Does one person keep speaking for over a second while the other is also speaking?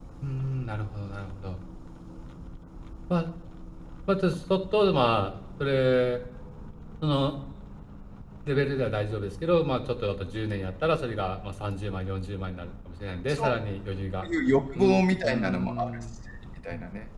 Yes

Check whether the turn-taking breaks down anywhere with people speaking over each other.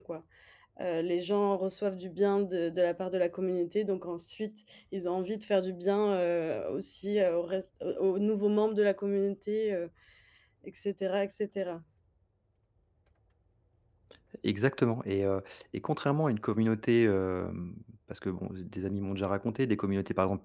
No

